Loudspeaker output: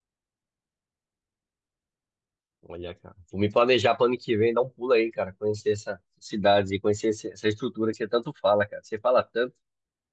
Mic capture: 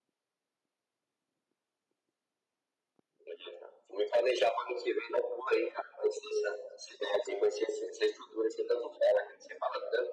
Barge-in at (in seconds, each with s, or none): none